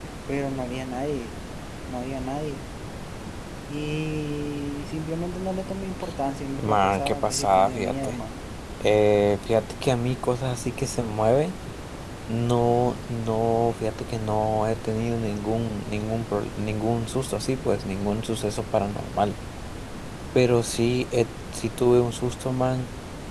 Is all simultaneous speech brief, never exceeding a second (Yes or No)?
No